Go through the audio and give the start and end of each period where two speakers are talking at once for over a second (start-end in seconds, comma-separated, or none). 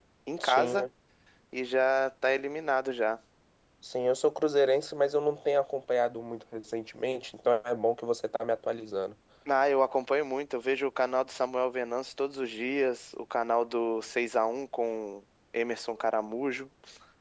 none